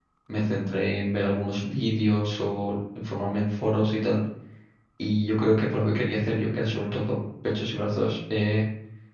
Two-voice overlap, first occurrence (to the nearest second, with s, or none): none